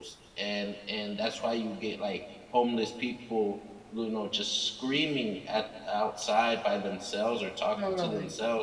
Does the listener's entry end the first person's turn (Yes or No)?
No